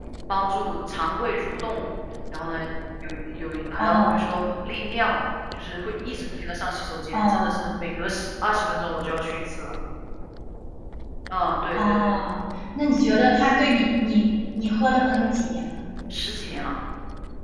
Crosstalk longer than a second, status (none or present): none